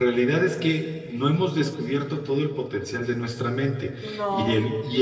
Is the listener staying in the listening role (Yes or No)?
Yes